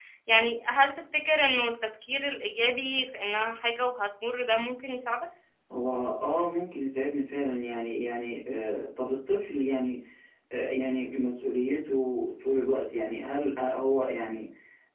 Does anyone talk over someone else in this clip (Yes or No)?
No